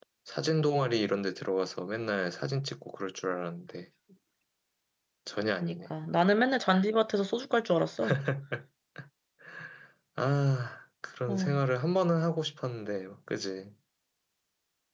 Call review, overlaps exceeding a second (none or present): none